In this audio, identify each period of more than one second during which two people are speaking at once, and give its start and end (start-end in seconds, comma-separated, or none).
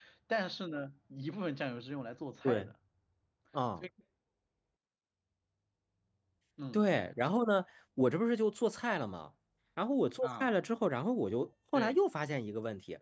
none